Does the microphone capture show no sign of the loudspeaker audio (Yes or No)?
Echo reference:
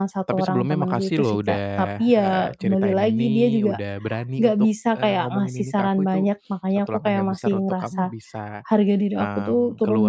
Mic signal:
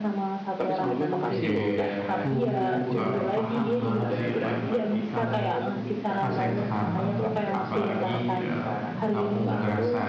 No